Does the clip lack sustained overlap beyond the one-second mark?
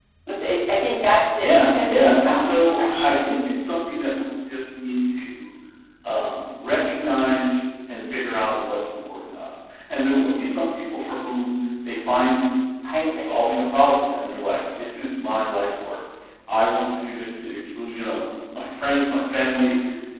No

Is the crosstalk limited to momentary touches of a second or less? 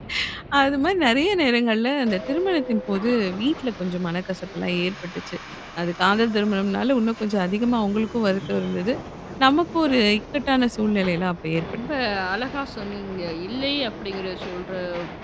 Yes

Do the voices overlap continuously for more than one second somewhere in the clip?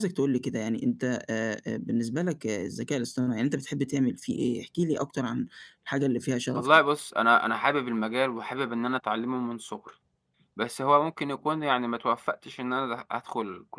No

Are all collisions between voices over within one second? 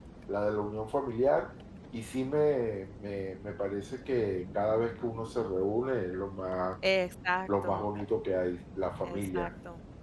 Yes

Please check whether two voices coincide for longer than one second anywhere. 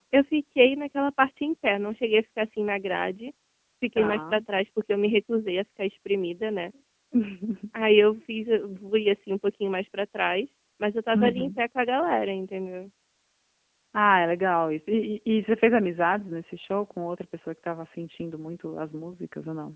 No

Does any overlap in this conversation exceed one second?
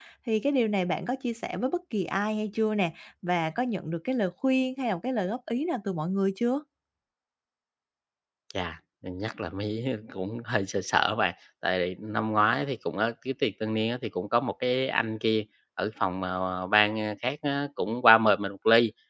No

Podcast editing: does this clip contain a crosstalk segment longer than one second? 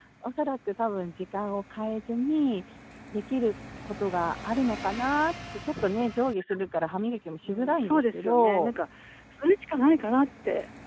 Yes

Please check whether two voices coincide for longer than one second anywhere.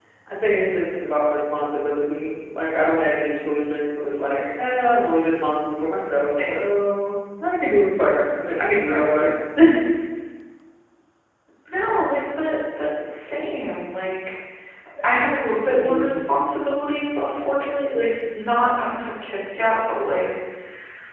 No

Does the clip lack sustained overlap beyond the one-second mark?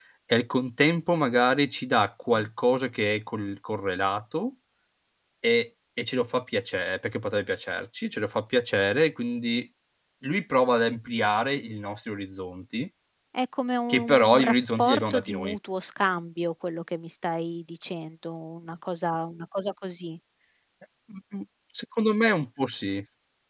No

